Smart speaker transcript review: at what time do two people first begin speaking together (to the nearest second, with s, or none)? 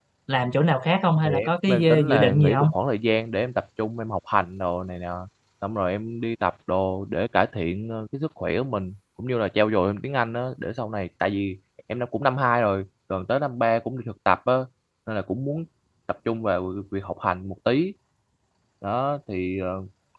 1 s